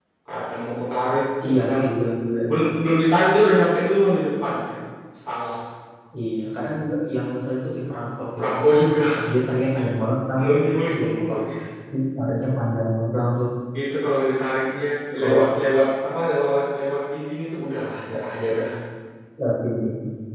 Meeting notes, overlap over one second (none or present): none